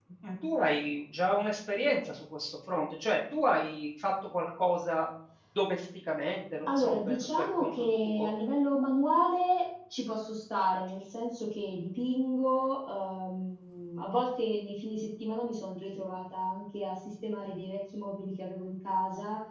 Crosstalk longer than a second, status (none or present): present